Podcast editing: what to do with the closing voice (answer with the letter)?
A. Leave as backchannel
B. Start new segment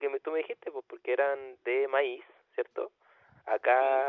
A